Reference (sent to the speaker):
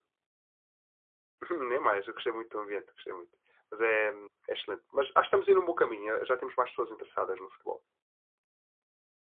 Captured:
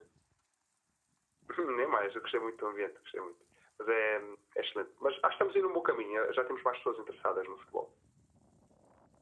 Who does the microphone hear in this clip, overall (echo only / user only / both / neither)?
echo only